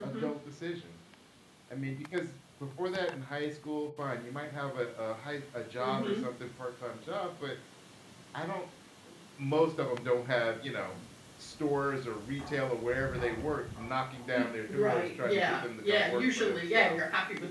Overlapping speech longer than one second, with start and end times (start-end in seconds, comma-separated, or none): 14.7-17.0